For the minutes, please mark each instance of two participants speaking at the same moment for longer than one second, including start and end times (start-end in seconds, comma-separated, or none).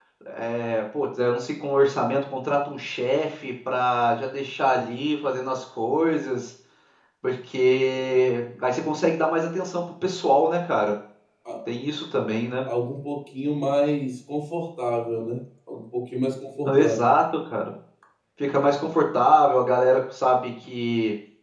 none